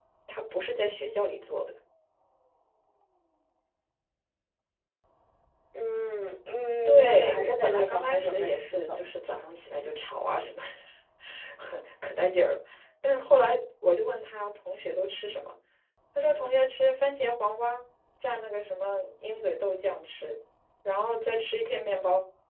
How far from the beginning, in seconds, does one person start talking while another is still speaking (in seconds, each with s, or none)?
6.8 s